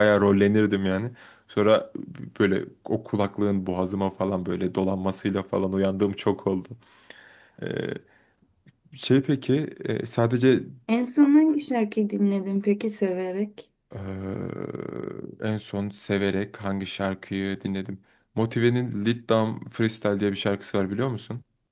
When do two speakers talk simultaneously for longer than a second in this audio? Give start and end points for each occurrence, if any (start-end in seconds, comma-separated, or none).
none